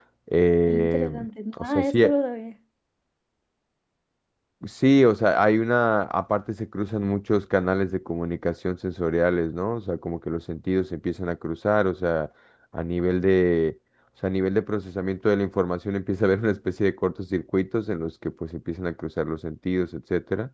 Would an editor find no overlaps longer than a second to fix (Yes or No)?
No